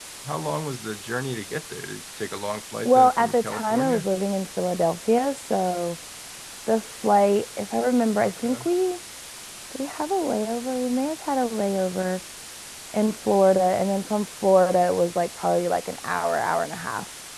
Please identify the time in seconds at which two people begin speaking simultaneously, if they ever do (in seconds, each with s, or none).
2.9 s